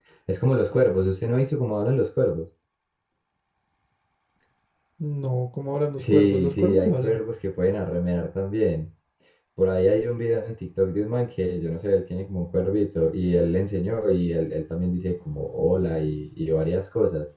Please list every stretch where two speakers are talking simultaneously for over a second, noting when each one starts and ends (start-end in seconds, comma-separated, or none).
6.0-7.2